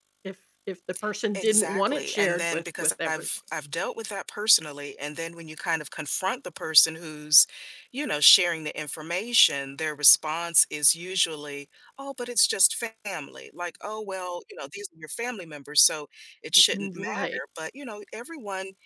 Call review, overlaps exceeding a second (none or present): present